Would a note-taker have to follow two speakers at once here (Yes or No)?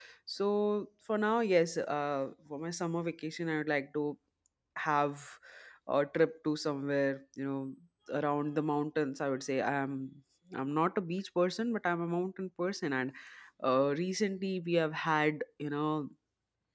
No